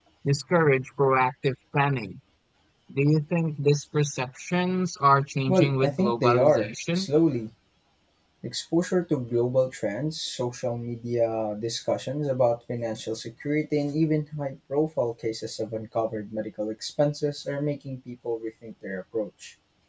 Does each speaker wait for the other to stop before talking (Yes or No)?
No